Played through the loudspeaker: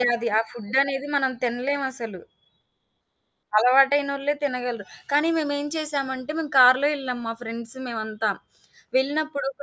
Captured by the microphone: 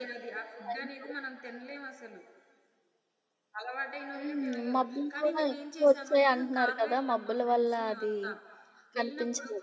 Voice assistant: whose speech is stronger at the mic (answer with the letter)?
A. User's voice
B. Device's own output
A